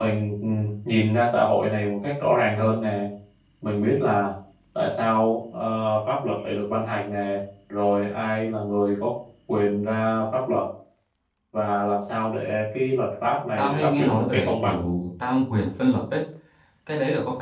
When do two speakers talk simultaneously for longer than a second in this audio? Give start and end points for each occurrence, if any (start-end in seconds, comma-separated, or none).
13.6-14.8